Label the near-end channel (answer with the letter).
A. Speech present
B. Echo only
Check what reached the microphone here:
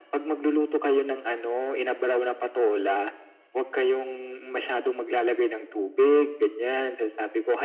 B